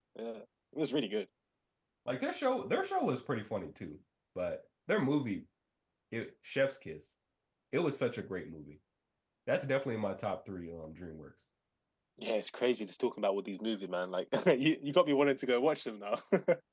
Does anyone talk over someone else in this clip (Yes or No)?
No